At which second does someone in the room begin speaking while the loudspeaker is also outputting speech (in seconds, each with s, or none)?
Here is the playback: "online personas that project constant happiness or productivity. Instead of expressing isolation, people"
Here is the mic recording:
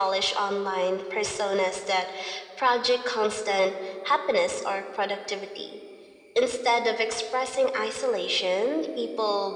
none